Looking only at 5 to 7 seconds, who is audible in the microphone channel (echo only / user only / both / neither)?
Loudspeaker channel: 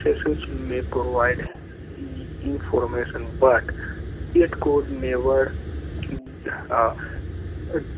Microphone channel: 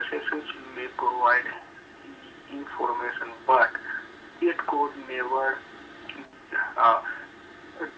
echo only